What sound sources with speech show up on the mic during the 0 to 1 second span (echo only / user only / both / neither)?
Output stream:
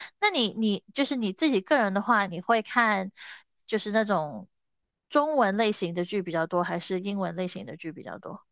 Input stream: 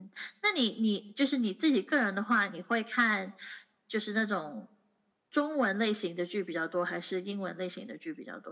echo only